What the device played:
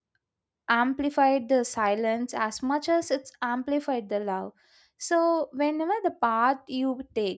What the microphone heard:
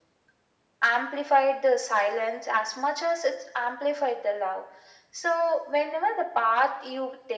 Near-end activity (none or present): none